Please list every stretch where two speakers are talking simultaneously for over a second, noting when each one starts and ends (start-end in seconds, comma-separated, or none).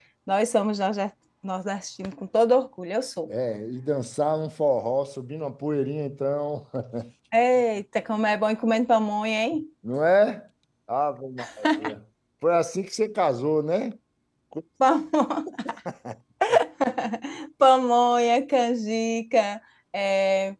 none